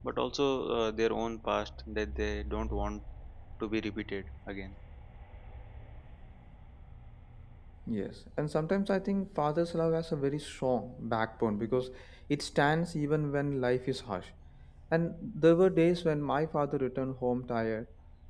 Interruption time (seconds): none

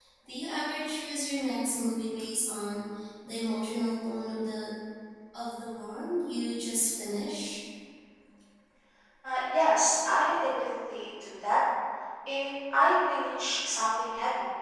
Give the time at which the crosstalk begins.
none

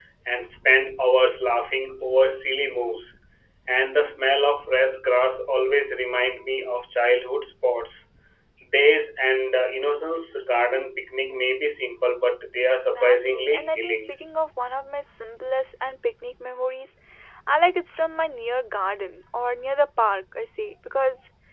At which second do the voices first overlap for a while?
12.7 s

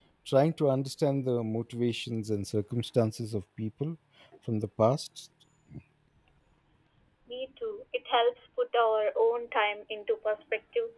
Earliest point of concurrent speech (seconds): none

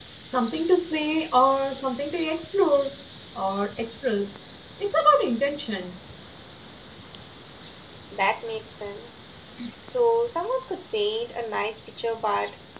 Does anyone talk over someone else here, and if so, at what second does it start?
none

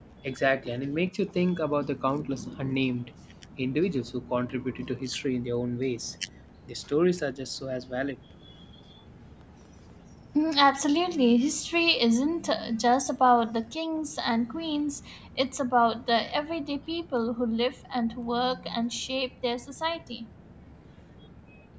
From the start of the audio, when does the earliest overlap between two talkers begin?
none

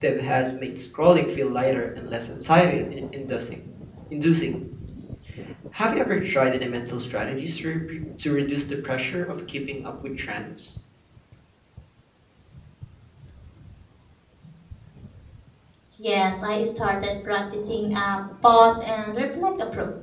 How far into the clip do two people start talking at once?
none

